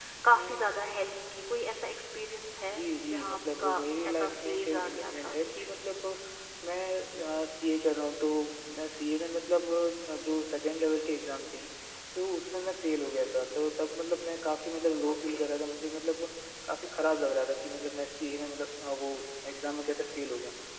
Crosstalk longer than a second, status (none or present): present